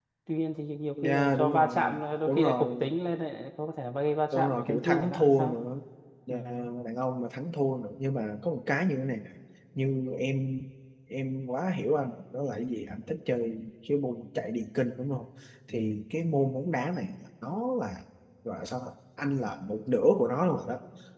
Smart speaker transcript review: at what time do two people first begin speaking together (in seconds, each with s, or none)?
1.0 s